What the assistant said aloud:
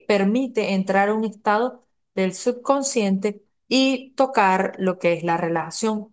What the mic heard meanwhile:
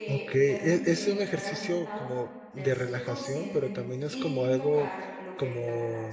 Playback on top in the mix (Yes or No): No